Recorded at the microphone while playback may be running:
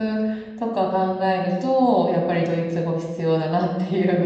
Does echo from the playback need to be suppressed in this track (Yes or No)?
No